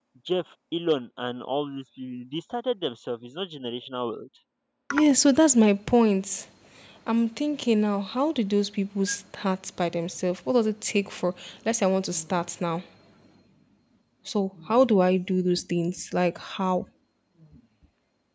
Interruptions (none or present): none